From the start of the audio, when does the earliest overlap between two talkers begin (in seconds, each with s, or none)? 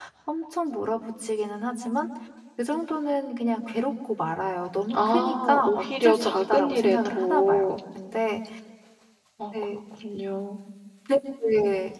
4.9 s